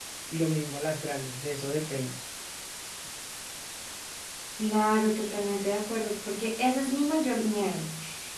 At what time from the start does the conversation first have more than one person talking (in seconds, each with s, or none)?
none